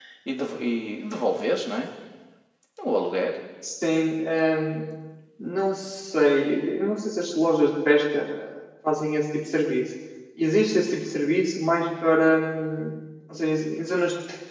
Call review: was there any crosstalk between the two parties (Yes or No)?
No